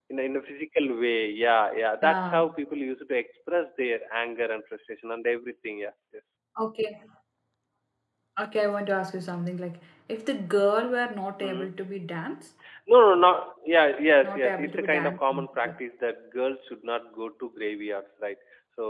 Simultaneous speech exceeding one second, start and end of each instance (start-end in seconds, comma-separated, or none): 14.2-15.5